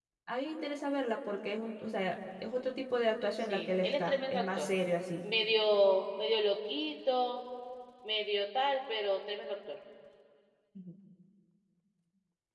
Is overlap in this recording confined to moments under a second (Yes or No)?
No